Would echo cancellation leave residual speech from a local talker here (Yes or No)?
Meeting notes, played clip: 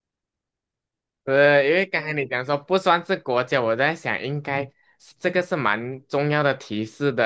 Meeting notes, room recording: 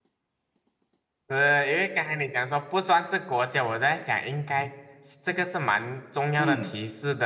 Yes